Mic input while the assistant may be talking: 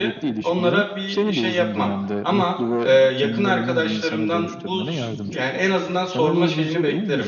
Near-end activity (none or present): present